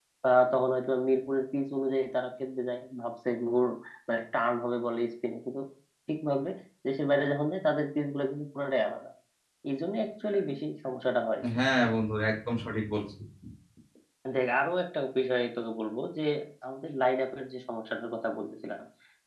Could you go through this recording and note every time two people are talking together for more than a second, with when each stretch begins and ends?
none

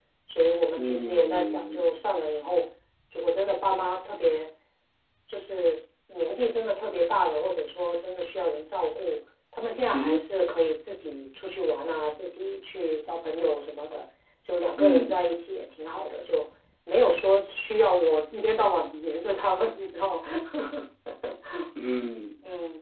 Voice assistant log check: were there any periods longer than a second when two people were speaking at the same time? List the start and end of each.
0.8-2.0

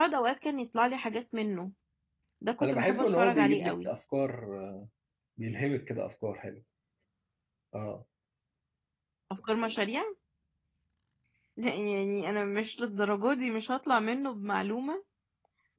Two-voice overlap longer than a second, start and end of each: 2.6-3.9

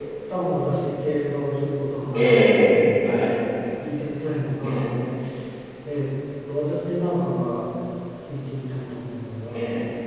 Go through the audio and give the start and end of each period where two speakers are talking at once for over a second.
2.1-3.4

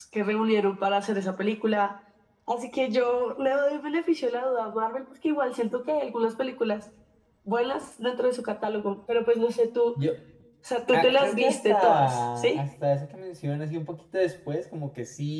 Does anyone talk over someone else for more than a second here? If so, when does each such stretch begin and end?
10.9-12.6

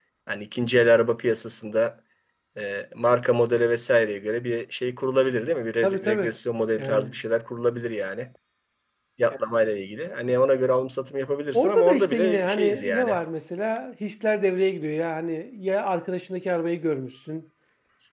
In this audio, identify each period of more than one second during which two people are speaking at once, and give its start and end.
11.5-13.2

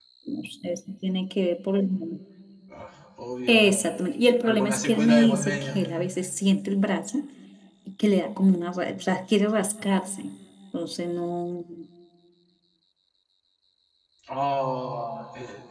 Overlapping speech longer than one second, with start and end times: 4.4-5.8

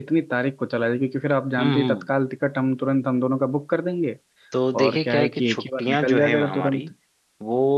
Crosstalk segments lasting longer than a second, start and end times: 4.8-6.8

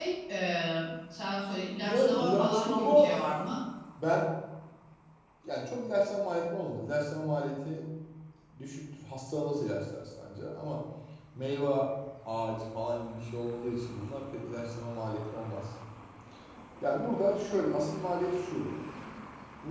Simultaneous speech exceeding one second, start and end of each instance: 1.9-3.2

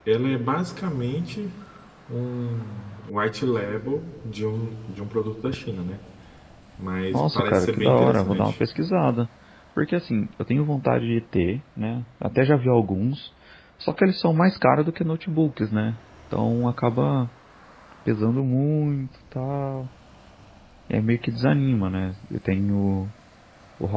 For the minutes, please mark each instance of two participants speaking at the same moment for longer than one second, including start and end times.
7.1-8.6

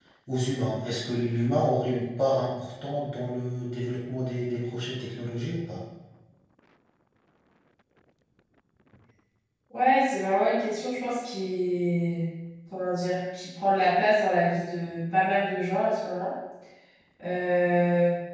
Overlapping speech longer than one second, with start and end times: none

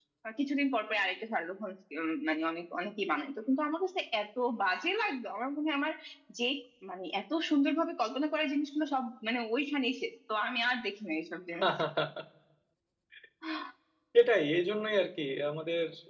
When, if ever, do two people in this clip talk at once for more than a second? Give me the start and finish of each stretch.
none

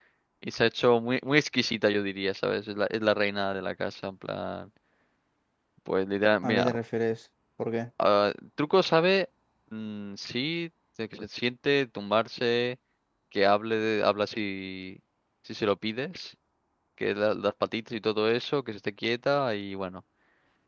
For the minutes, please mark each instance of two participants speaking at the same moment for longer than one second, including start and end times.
none

